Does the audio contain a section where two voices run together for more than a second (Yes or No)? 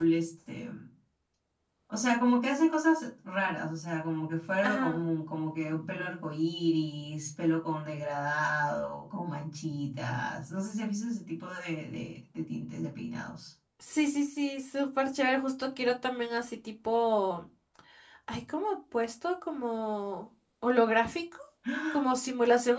No